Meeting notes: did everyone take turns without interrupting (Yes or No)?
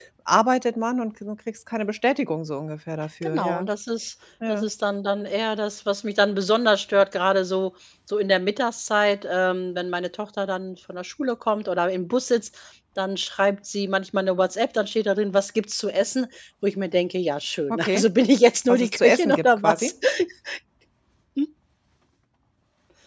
No